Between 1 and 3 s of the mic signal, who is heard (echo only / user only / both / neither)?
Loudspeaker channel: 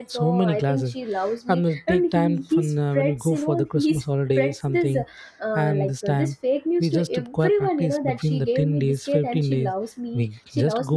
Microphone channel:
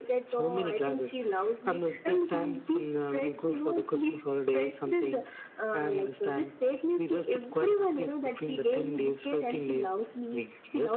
echo only